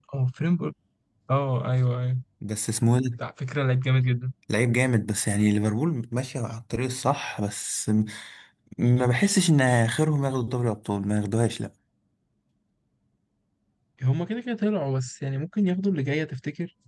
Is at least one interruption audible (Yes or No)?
No